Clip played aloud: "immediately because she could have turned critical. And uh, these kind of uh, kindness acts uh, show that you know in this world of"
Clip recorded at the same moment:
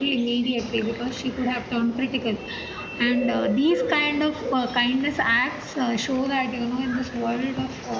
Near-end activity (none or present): none